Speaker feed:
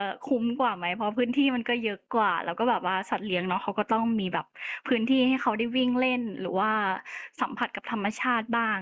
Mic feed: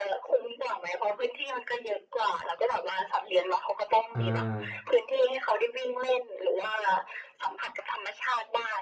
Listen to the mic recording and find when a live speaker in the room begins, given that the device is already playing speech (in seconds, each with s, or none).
4.2 s